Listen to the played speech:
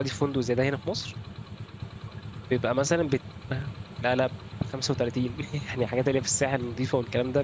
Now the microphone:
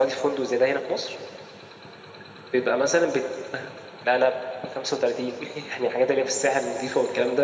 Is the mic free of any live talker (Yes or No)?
Yes